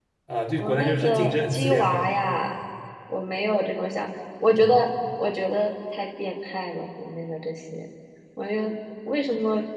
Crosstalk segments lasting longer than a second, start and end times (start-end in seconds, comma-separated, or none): 0.6-2.0